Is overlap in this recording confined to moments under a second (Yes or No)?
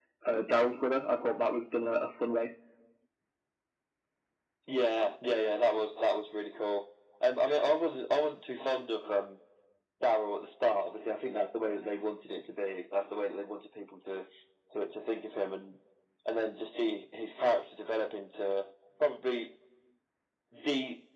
Yes